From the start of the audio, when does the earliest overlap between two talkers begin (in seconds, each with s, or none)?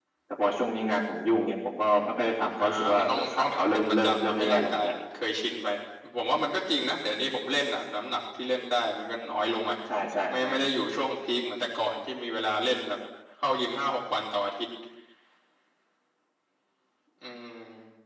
2.6 s